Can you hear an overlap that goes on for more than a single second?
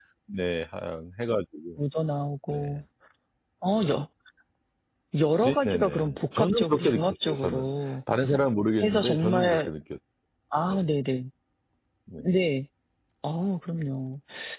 Yes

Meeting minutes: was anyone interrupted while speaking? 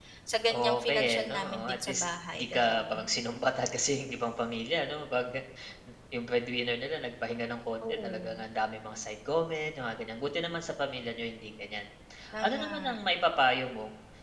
Yes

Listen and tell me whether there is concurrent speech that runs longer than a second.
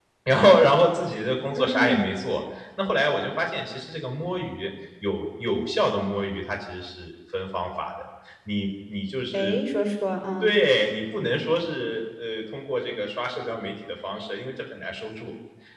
No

